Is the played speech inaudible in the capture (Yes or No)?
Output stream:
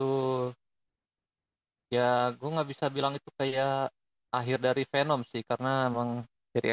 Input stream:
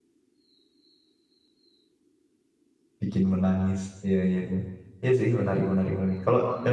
Yes